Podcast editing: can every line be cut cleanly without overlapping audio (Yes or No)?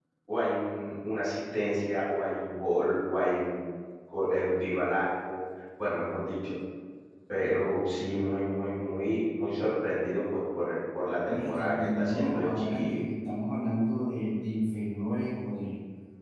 No